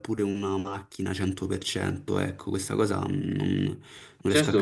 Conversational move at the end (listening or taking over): taking over